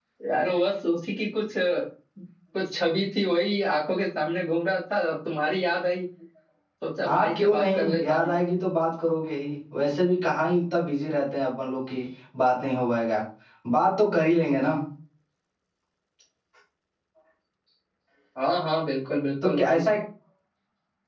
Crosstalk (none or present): present